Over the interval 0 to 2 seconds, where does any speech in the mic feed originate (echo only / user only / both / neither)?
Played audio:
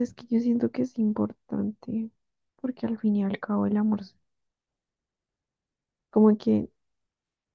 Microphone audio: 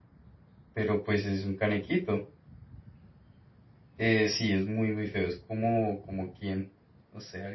user only